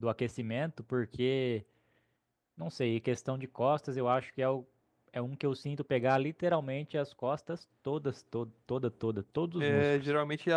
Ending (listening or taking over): taking over